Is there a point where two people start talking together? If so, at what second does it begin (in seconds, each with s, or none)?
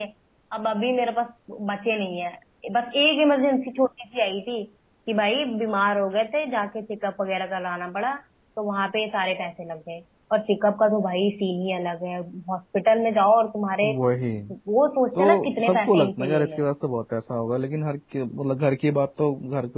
15.2 s